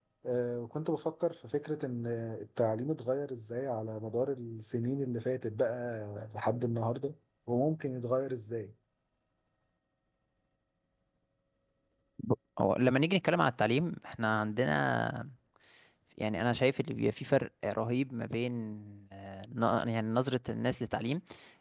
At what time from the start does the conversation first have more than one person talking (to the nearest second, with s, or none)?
none